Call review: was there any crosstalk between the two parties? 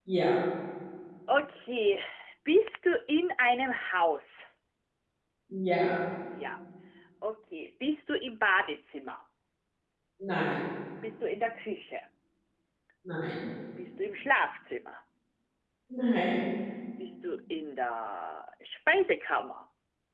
No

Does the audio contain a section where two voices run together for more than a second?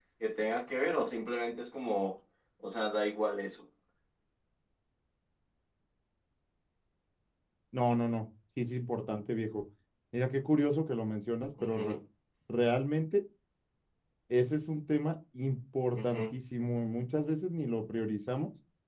No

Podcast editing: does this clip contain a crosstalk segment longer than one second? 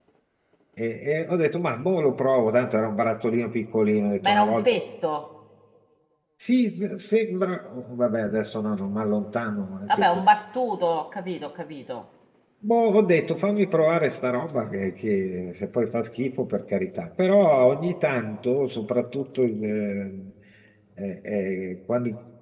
No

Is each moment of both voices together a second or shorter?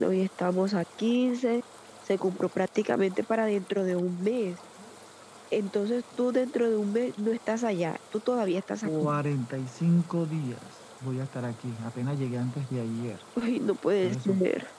Yes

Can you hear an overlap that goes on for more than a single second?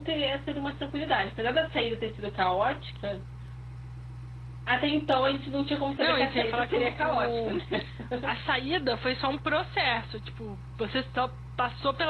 Yes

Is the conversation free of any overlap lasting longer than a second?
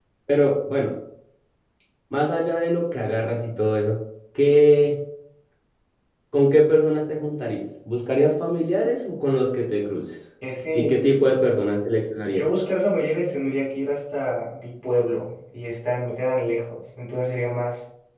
Yes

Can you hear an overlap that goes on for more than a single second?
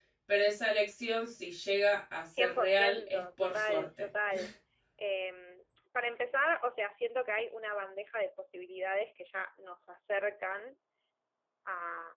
Yes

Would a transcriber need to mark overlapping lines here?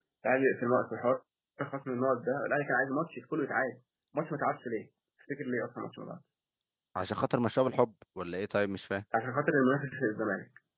No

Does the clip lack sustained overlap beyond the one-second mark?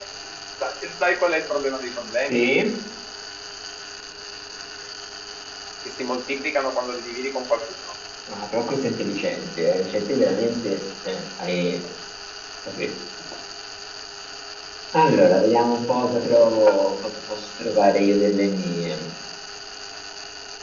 Yes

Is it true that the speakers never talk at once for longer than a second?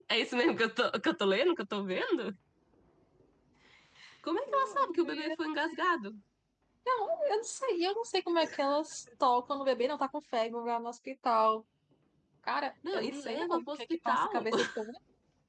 No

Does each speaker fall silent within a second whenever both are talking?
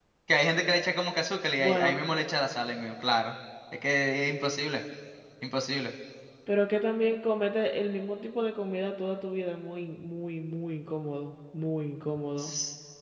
Yes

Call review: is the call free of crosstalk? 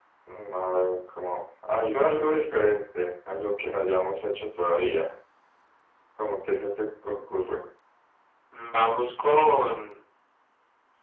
Yes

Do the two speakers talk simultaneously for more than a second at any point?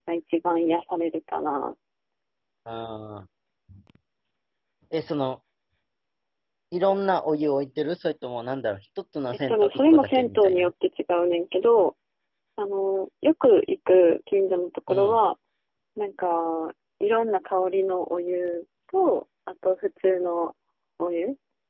Yes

